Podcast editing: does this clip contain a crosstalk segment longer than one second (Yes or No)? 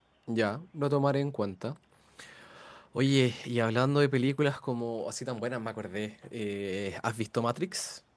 No